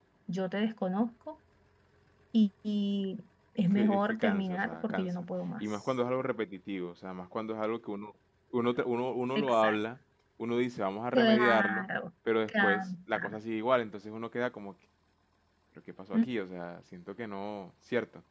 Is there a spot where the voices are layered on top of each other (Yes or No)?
Yes